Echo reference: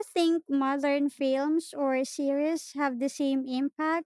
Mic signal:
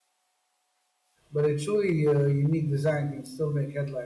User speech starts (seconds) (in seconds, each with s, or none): 1.3 s